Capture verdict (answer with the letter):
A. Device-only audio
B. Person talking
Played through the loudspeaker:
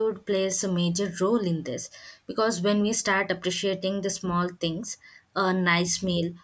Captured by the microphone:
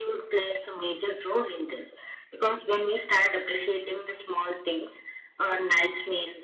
A